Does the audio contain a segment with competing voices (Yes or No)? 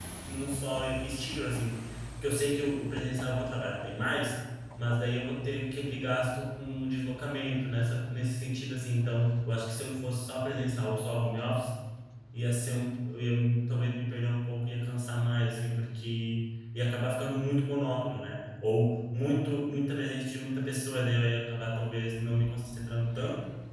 No